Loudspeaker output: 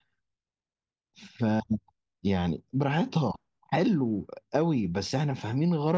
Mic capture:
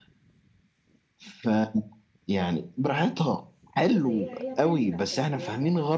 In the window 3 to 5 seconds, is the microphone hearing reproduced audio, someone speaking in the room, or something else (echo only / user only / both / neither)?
both